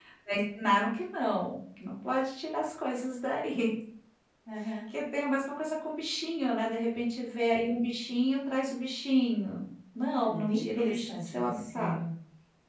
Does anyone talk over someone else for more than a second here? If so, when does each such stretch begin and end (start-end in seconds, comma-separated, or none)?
10.1-12.0